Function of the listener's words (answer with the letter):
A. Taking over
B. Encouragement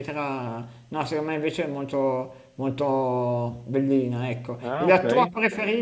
B